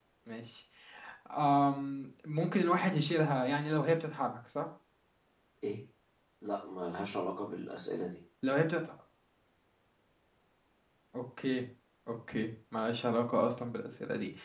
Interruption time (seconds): none

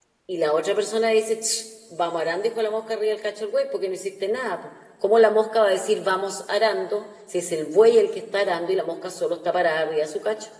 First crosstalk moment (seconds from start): none

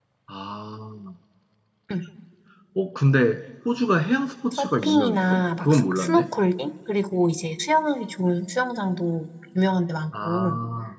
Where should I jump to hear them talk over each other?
4.5 s

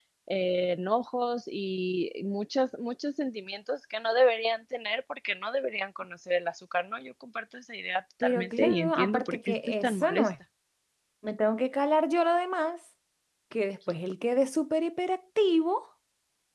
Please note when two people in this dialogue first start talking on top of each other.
8.2 s

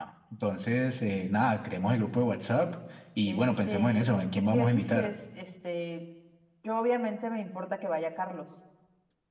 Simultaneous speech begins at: 3.3 s

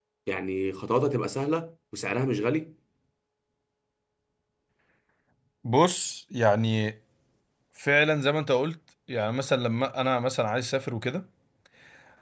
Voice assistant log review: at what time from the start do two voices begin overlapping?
none

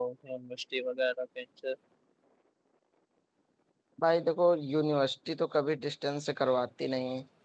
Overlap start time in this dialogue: none

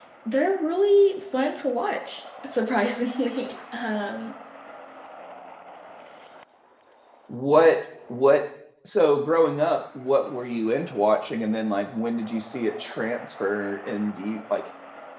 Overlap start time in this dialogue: none

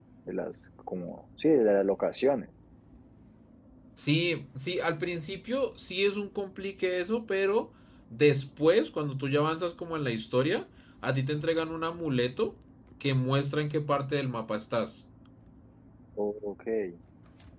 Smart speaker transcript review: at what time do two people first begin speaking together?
none

